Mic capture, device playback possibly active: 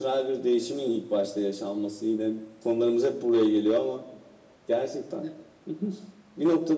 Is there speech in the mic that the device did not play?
No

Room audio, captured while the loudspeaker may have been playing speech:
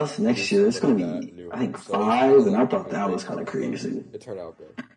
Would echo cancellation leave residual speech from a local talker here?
Yes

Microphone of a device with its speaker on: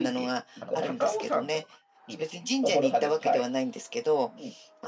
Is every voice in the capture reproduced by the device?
No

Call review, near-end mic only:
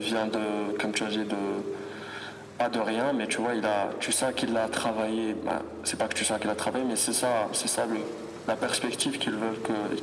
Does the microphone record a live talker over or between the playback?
No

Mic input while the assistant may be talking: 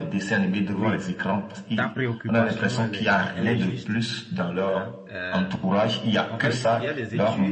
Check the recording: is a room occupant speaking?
Yes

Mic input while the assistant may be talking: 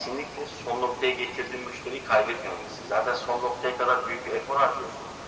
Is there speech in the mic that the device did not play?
No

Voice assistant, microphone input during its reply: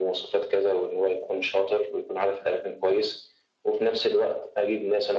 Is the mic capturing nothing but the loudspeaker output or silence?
Yes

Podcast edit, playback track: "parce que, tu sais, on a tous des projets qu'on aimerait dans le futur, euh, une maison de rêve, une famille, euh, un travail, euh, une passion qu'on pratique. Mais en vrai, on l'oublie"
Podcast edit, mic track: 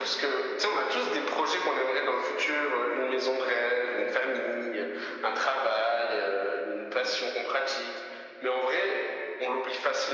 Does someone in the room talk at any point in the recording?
No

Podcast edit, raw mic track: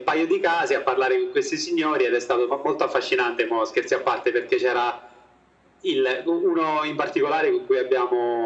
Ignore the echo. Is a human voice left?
No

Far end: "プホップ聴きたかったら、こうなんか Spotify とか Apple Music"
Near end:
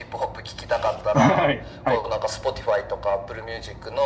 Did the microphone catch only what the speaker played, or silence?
No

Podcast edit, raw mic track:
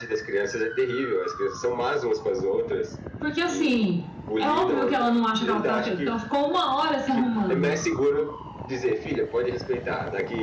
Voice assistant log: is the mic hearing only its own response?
No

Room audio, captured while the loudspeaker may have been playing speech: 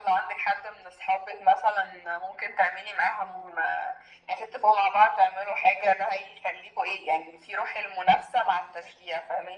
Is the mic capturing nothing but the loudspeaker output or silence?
Yes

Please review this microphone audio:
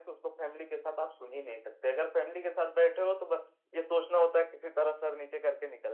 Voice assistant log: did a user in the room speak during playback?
No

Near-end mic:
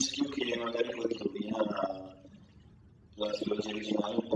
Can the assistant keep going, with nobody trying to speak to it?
Yes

